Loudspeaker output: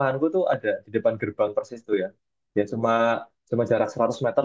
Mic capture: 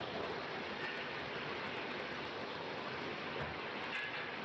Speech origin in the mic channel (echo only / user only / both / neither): neither